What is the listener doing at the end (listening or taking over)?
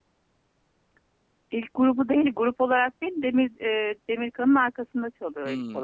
taking over